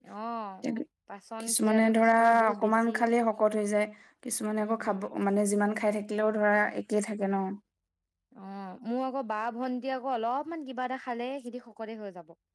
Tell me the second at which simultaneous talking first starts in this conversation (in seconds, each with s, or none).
1.5 s